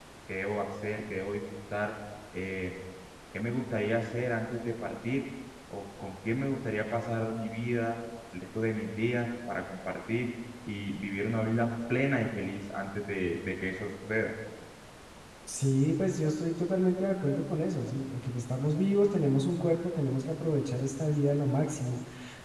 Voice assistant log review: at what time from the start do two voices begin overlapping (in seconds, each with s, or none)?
none